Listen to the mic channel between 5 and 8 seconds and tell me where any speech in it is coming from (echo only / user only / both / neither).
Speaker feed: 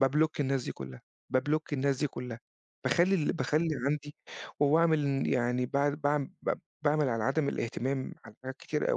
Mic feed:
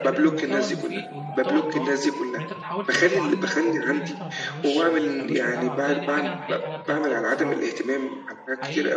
both